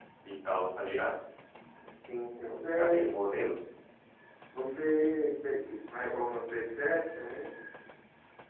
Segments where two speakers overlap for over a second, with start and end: none

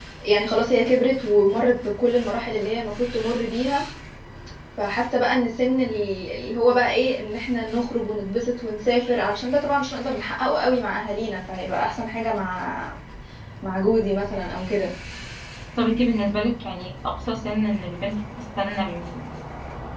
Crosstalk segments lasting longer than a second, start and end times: none

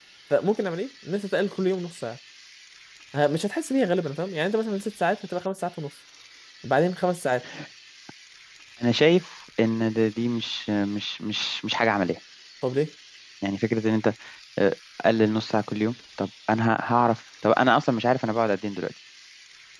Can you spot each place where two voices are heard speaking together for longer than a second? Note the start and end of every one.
none

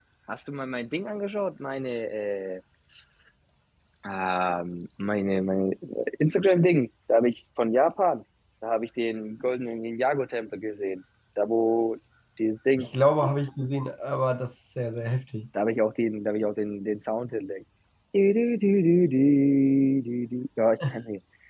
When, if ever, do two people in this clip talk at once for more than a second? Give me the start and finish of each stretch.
none

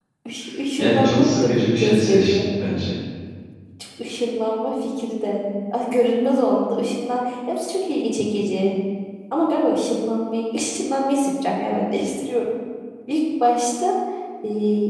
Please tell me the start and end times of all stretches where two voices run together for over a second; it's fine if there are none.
0.8-2.5

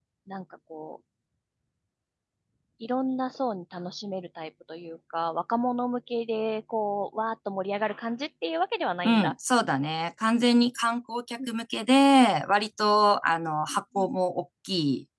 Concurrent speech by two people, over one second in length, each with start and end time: none

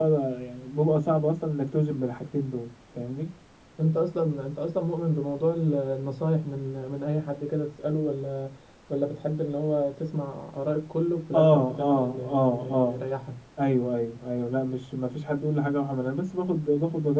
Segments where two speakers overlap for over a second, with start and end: 11.3-13.0

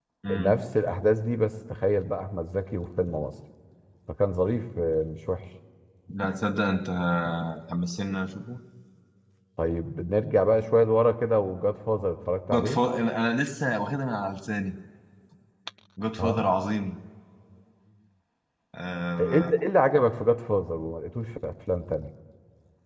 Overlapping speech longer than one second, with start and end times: none

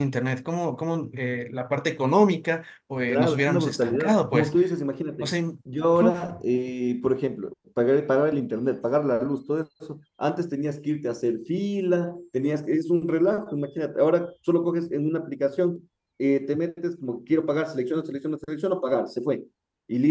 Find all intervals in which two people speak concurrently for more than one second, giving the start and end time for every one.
3.1-4.5

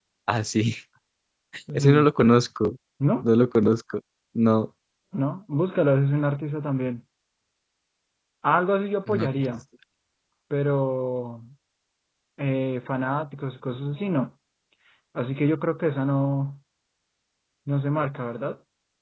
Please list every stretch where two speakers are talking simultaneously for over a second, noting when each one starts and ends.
none

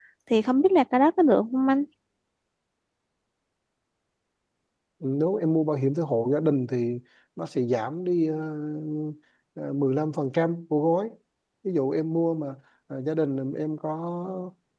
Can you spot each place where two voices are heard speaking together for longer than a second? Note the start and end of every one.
none

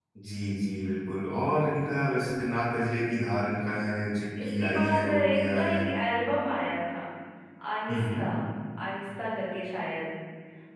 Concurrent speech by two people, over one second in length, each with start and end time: 4.4-5.8

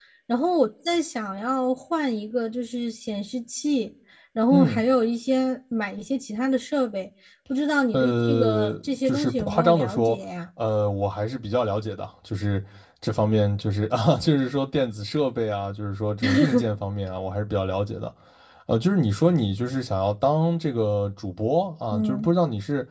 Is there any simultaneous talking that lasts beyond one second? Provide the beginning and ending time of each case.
7.9-10.2

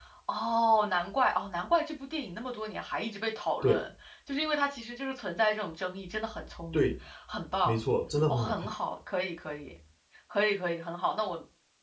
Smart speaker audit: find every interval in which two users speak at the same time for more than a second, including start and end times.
none

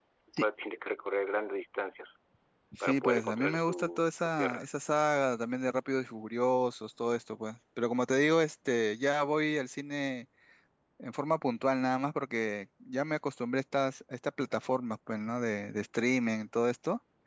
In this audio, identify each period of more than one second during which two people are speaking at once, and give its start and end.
2.8-4.6

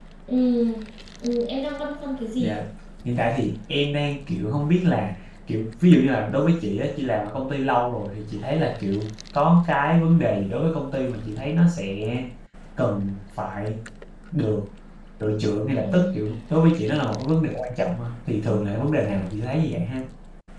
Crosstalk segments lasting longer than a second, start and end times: none

